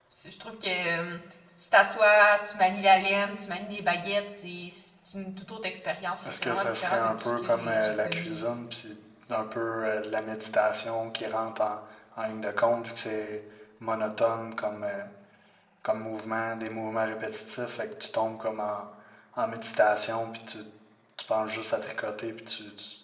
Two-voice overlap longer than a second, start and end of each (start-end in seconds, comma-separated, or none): 6.2-8.4